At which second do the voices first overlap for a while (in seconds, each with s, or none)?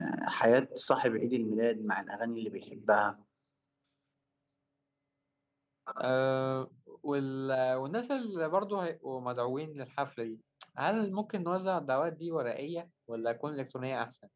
none